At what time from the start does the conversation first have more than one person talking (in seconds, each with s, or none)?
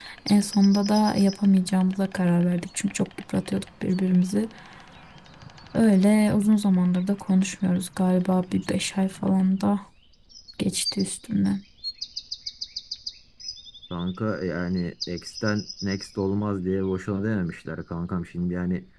none